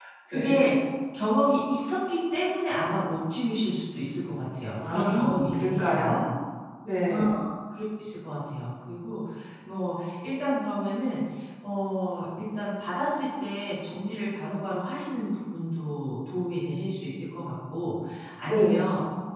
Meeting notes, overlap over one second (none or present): present